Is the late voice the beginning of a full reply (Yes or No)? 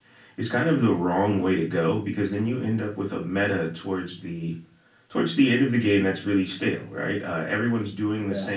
No